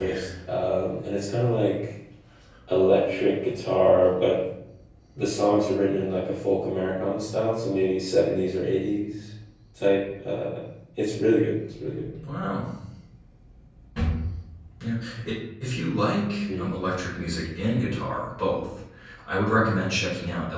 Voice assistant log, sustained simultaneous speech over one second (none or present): none